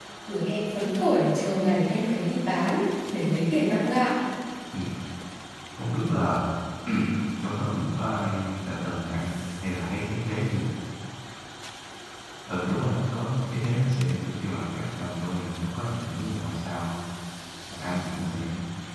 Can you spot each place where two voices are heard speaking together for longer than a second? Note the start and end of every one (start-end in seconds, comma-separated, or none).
none